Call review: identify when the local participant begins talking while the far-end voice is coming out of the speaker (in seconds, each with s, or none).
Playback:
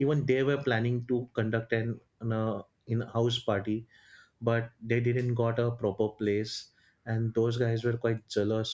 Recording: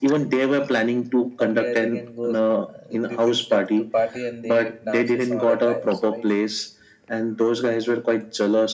1.4 s